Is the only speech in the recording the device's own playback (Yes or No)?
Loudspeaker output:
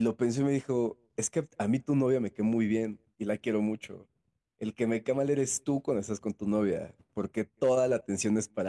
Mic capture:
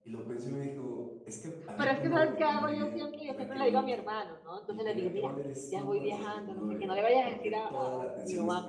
No